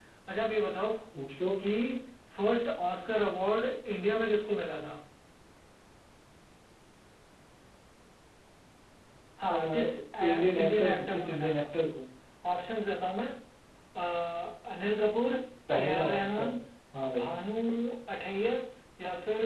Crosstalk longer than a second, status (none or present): present